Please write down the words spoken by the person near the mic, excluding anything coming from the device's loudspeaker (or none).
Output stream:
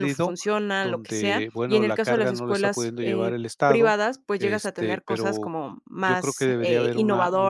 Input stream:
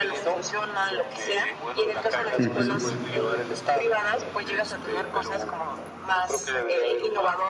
ujú,